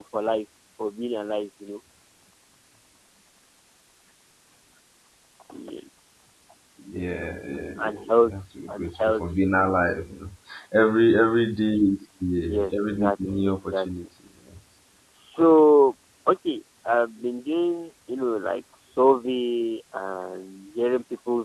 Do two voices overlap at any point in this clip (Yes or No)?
Yes